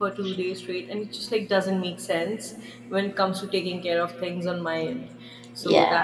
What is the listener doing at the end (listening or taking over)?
listening